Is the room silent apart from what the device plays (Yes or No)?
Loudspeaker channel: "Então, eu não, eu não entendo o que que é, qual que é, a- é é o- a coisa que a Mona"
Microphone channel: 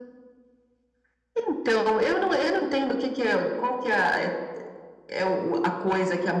Yes